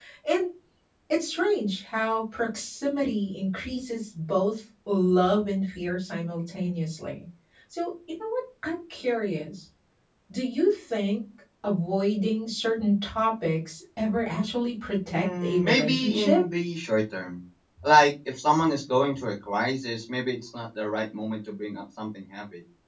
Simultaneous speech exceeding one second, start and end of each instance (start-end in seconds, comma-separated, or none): 15.1-16.4